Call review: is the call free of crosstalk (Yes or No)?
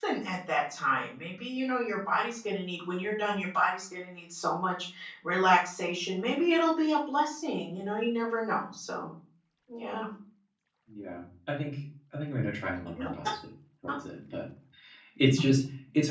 Yes